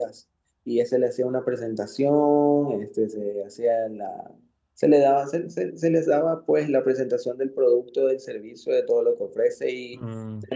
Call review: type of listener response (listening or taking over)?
listening